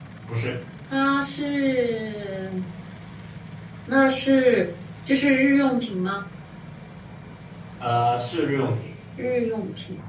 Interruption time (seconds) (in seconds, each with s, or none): none